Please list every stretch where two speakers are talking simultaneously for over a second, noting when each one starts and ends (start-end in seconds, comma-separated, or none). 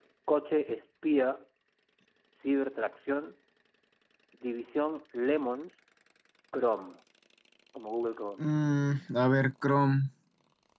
none